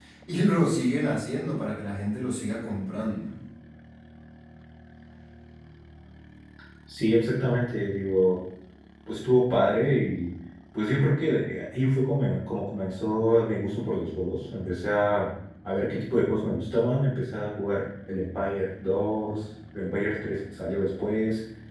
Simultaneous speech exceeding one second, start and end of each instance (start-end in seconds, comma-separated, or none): none